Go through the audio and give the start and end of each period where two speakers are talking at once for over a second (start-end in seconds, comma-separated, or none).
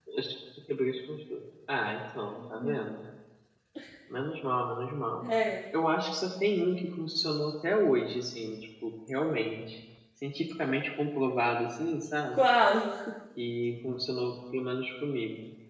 none